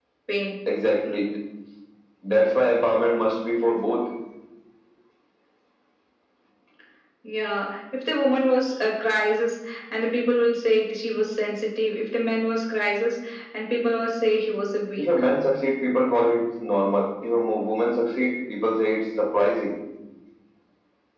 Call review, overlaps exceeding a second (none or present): none